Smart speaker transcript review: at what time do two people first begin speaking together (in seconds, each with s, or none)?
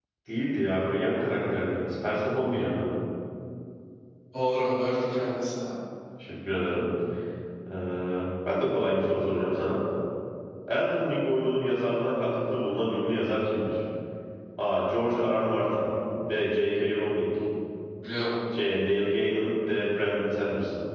none